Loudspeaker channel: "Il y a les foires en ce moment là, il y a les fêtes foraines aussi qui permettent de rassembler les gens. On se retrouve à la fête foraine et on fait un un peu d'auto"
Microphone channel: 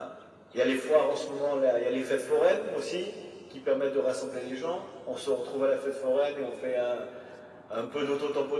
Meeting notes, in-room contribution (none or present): none